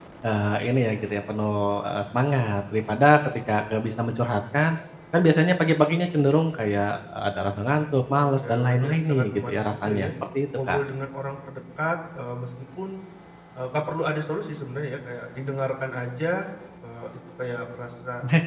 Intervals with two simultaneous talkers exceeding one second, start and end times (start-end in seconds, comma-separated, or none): 8.2-10.1